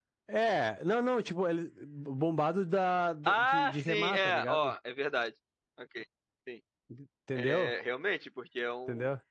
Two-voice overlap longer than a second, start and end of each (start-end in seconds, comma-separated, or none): 3.3-4.7